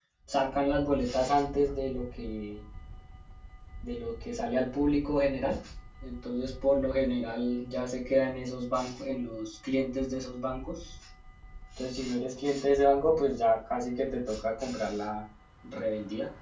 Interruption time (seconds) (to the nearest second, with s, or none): none